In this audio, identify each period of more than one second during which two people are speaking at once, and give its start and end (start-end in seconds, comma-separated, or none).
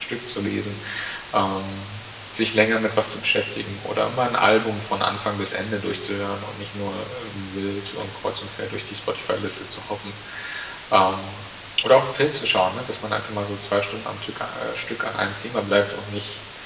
none